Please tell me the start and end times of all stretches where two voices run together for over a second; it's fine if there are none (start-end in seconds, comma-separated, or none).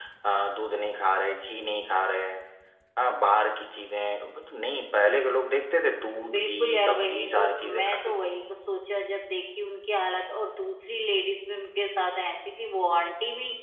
6.3-8.3